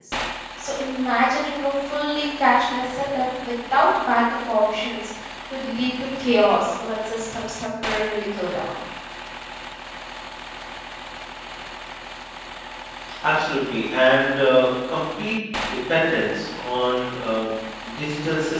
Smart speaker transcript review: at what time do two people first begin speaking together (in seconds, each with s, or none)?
none